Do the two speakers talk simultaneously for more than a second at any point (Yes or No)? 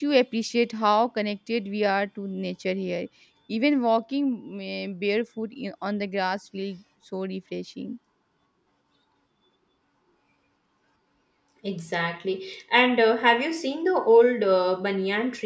No